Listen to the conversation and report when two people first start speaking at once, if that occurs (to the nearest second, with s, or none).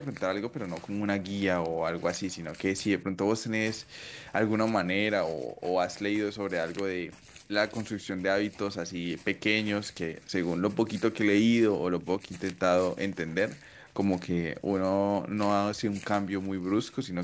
none